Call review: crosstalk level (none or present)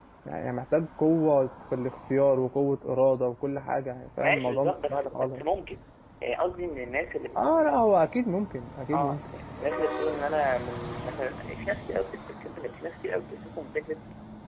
present